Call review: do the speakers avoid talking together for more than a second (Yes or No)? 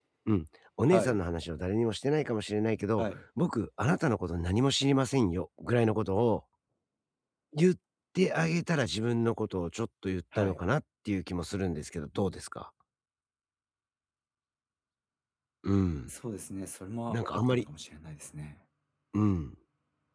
Yes